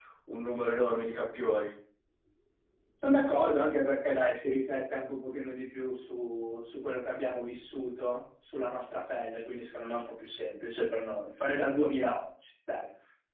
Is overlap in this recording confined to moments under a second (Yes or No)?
Yes